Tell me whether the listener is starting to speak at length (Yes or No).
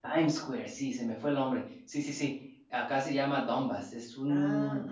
No